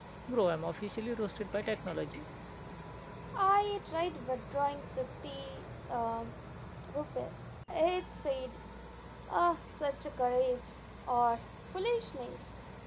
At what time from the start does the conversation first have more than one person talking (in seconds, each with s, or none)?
none